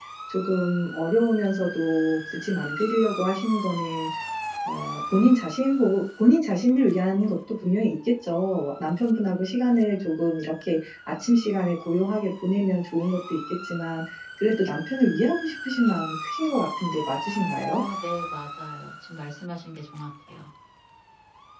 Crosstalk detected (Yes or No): No